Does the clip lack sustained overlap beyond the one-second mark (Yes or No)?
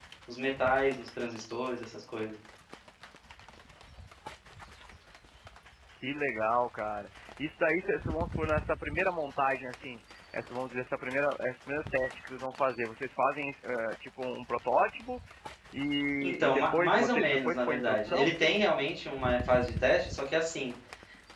No